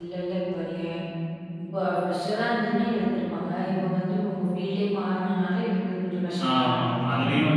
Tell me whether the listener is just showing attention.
No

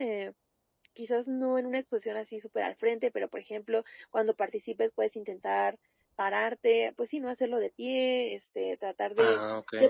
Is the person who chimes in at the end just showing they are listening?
Yes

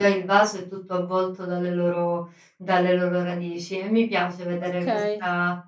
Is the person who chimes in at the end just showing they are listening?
Yes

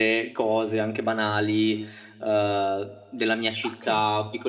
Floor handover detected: No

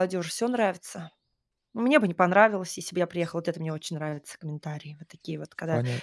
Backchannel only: No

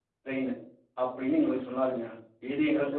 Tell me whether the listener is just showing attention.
Yes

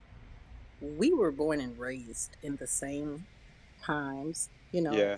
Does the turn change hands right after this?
No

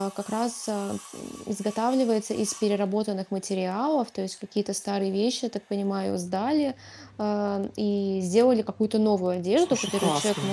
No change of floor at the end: Yes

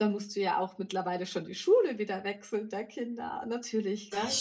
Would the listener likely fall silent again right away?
Yes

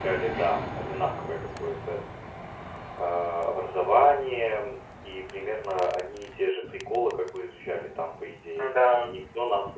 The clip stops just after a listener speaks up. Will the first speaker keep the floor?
Yes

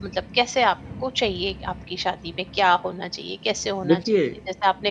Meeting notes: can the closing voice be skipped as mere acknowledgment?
Yes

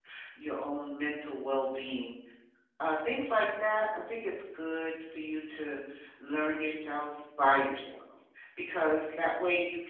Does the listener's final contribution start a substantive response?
No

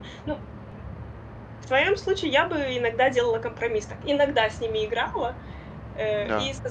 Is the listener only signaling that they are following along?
Yes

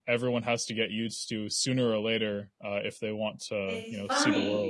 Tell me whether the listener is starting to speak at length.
Yes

